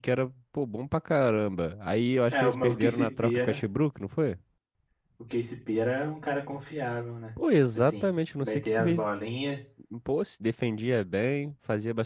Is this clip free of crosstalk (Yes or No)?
No